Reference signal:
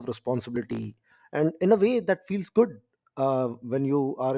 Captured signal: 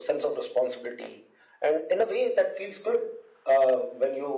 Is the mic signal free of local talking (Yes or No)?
Yes